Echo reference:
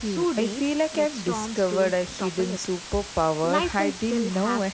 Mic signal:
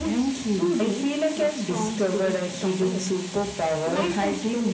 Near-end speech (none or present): none